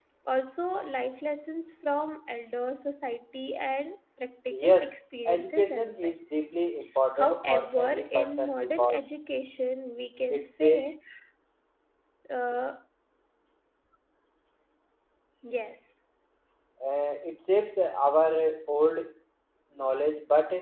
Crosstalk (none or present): present